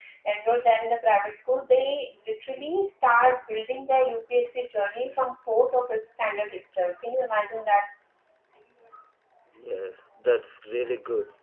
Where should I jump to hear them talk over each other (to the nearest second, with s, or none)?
none